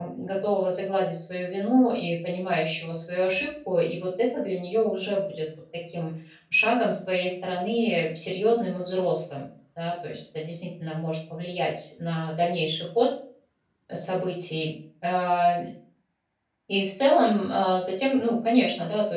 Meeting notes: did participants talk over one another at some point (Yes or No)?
No